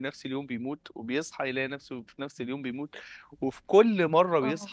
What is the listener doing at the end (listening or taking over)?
listening